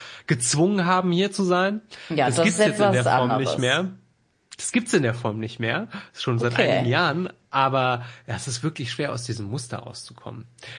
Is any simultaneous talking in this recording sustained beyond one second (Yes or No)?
Yes